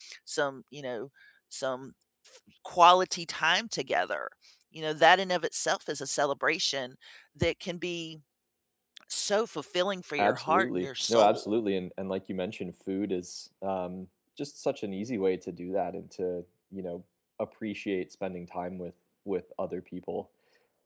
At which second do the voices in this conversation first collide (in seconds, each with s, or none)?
10.2 s